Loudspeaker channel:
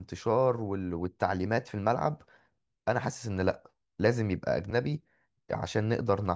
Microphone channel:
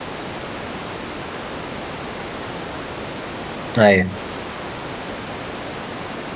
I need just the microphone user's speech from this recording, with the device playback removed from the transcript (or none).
أيوه